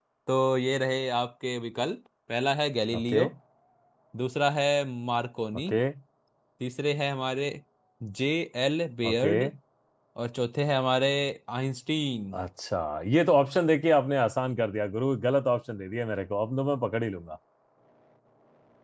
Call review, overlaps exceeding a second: none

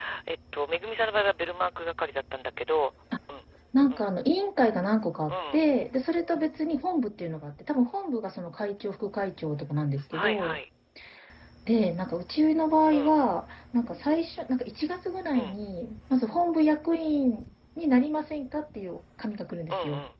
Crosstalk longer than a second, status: none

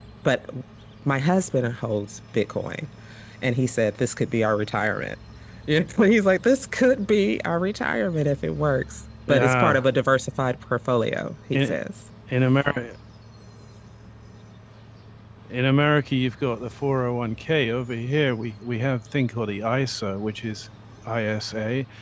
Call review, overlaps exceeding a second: none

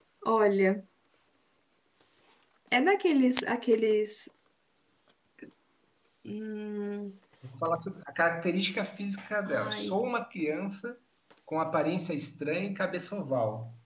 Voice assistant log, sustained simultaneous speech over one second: none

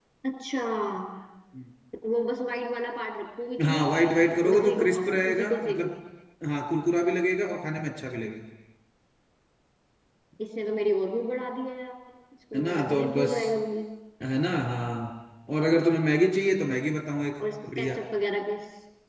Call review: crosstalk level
present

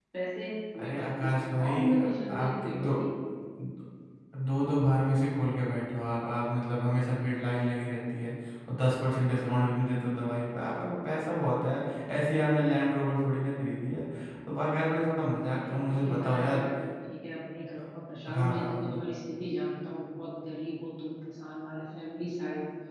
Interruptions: present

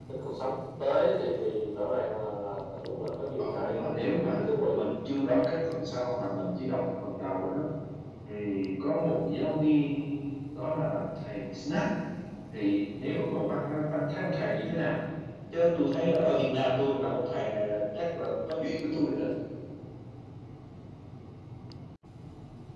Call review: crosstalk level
present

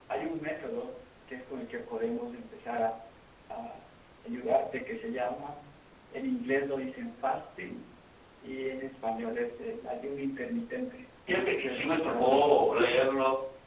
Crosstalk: present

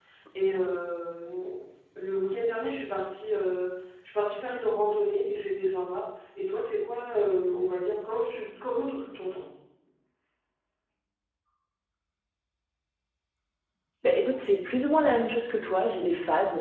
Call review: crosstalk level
none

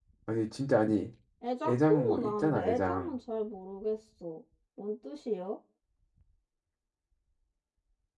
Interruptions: present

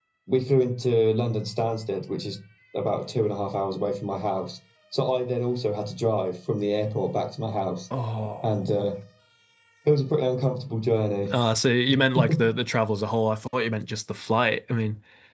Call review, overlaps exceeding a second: none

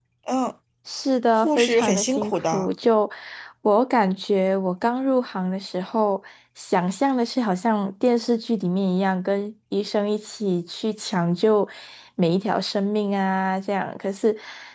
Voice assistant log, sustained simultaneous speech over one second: present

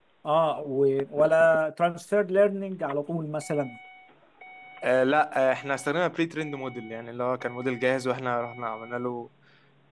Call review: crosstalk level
none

